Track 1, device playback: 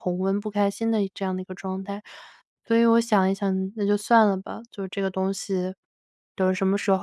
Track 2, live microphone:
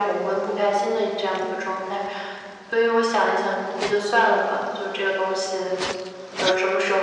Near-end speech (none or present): none